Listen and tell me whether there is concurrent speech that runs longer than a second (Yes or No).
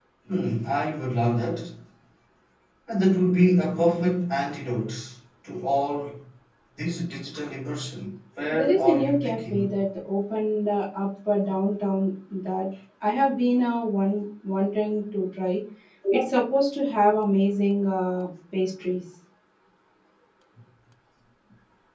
Yes